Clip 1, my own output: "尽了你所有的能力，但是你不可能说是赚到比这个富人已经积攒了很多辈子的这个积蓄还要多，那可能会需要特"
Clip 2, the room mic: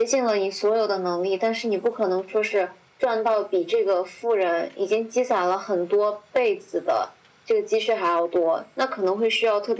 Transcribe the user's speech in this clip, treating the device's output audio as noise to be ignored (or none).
none